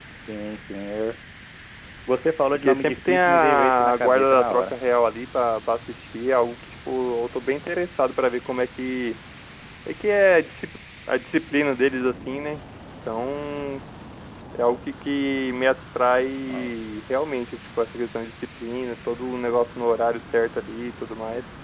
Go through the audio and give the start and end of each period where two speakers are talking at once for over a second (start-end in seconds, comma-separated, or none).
2.5-4.8